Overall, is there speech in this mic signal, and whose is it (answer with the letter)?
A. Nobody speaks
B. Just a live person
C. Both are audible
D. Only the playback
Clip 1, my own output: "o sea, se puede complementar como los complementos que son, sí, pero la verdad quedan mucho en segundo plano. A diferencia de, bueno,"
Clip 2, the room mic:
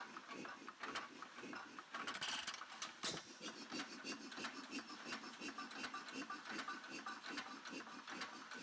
A